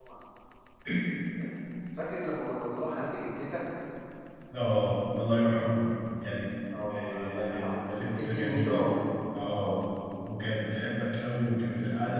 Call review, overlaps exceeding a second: present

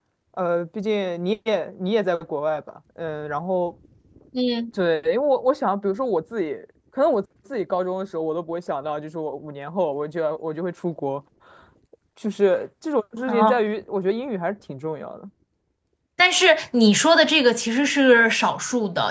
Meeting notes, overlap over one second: none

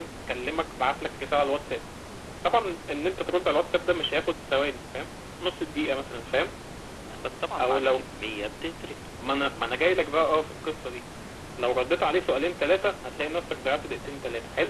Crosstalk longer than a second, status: none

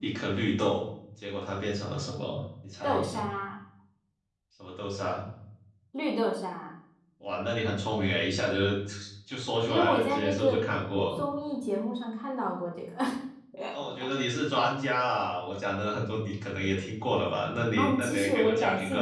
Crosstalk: present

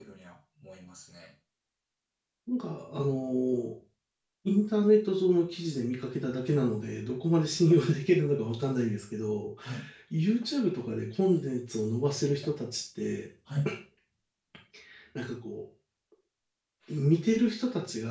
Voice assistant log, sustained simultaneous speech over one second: none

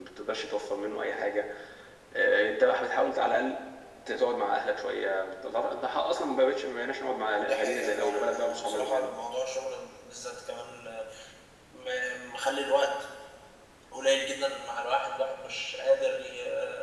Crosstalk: present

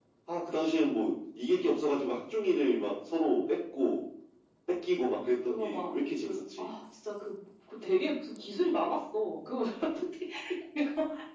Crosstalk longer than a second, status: present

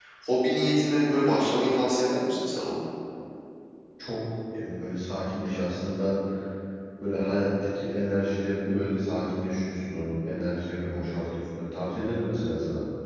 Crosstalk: none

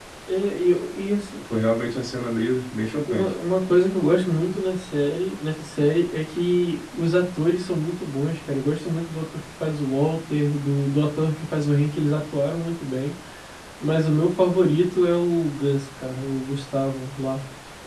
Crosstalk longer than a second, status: none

